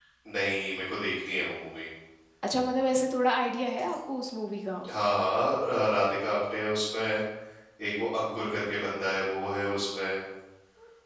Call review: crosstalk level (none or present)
none